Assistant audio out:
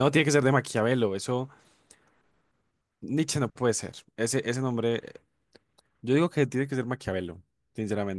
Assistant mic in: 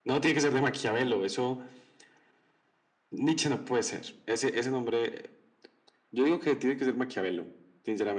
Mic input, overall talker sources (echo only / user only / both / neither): echo only